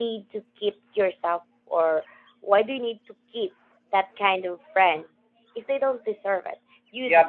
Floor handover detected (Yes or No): Yes